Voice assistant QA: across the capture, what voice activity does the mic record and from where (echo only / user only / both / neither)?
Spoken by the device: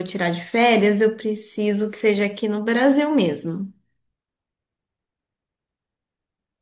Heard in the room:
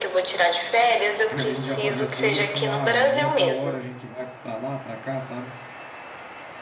both